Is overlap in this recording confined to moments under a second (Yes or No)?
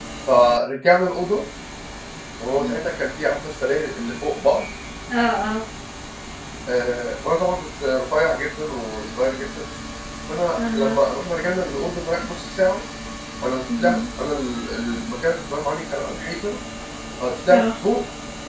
Yes